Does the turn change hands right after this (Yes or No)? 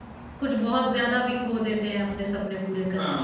Yes